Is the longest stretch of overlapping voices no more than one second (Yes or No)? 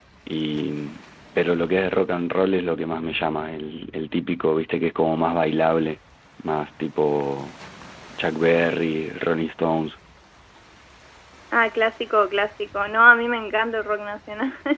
Yes